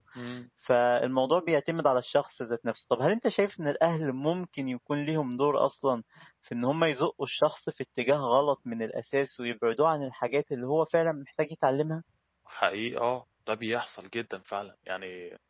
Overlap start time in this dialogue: none

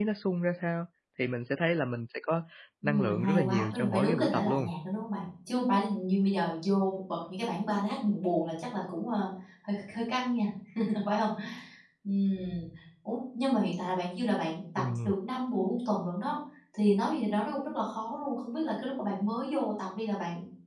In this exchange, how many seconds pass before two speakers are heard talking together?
2.8 s

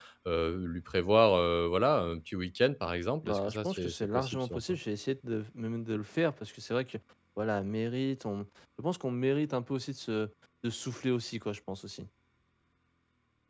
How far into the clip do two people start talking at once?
3.2 s

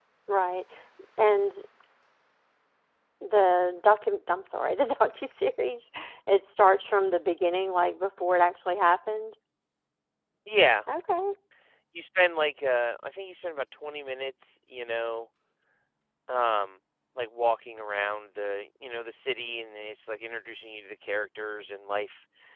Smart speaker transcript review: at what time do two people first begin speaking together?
none

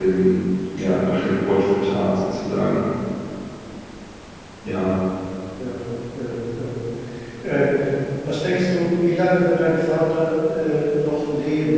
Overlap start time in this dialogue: none

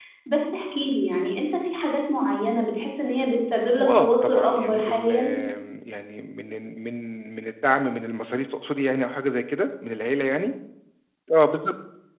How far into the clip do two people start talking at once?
3.8 s

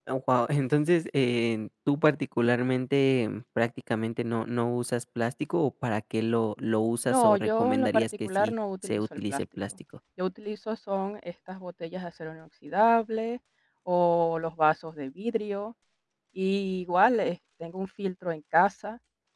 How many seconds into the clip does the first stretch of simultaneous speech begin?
7.1 s

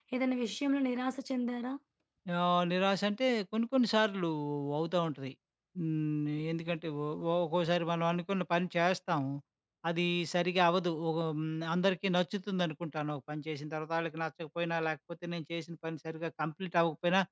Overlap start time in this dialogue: none

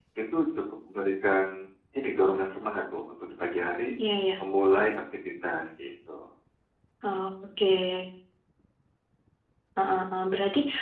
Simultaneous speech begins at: none

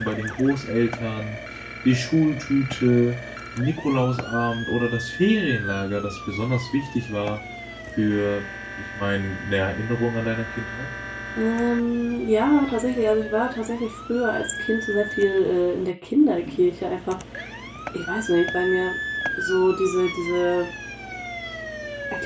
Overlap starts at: none

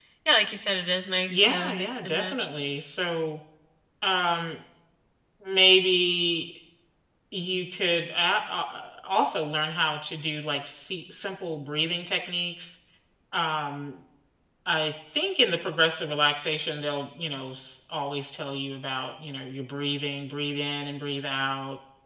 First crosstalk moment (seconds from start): 1.3 s

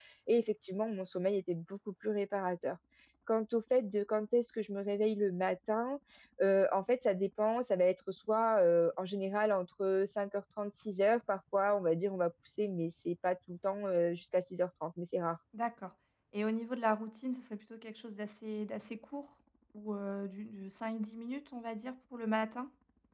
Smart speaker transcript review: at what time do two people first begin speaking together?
none

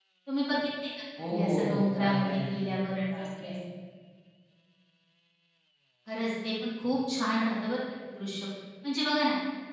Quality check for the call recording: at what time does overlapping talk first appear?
1.2 s

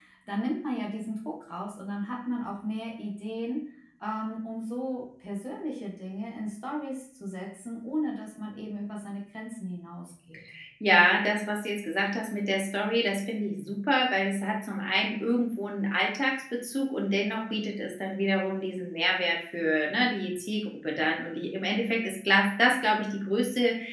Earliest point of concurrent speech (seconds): none

